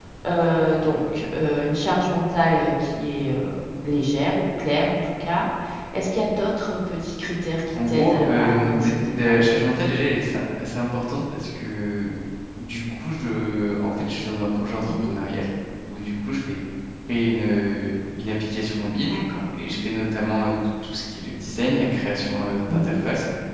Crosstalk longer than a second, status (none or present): present